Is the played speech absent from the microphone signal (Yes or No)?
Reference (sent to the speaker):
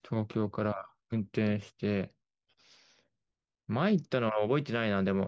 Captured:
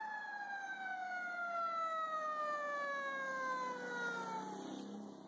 Yes